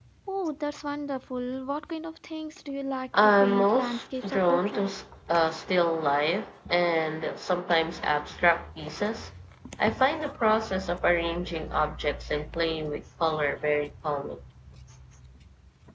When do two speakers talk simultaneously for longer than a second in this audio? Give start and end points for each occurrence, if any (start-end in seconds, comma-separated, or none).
3.2-4.9